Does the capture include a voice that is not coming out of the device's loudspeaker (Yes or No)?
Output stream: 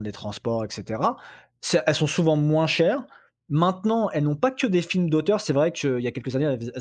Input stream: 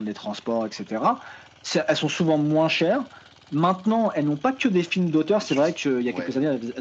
Yes